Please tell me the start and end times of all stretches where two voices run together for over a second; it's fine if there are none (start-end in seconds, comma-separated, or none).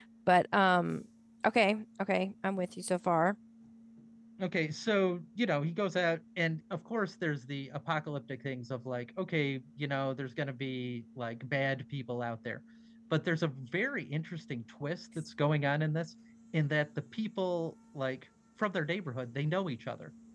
none